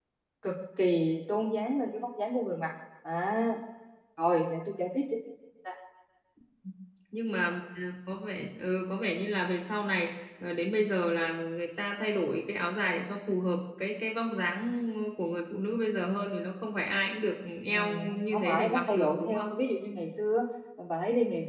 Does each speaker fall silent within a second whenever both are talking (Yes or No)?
No